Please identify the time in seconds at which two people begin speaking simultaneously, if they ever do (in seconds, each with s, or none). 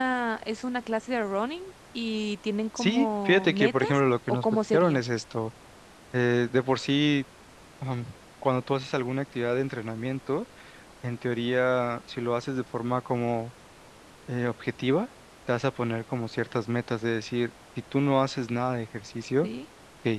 2.8 s